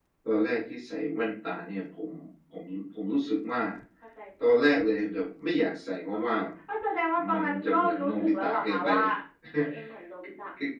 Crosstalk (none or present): present